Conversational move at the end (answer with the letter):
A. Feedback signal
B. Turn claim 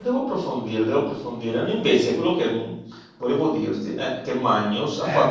A